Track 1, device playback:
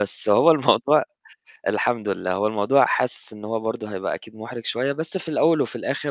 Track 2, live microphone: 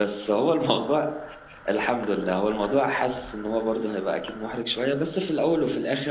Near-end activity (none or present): none